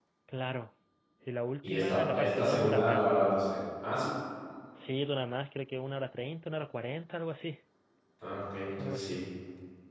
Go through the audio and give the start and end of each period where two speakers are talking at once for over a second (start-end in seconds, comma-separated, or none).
1.6-3.1